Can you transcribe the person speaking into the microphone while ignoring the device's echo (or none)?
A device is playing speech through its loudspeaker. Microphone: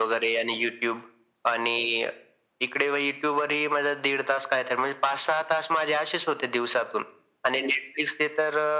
none